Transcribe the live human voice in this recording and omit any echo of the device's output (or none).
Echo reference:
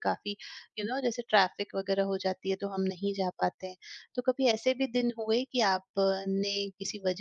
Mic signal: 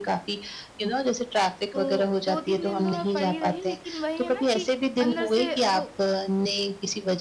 तो 2-3 दिन तो मैं पड़ी रही लेकिन वही है ना कि अंदर से वो